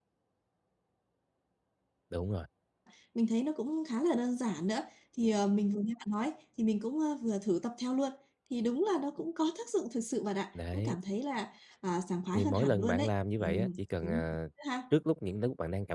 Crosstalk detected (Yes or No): Yes